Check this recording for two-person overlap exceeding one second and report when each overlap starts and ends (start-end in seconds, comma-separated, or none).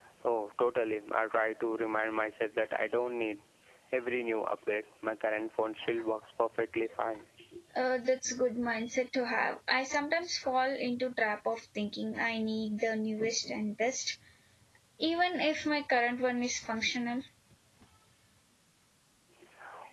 none